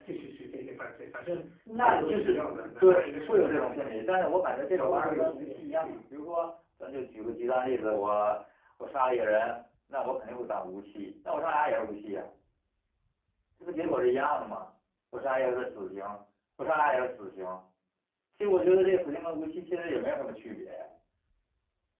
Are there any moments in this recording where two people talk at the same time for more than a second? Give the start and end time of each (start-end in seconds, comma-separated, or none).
1.8-3.9, 4.7-6.0